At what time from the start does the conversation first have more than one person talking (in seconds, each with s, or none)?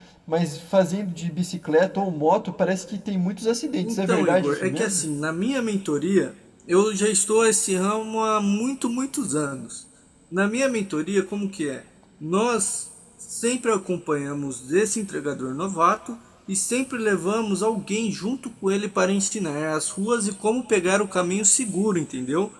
3.8 s